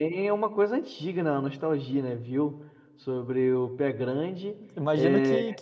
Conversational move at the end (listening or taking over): taking over